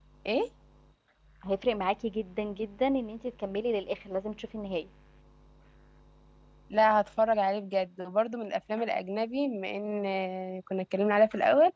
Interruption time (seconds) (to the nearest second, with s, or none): none